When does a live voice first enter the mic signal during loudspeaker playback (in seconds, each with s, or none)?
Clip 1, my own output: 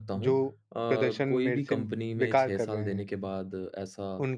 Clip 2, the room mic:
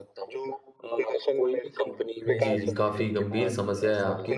2.3 s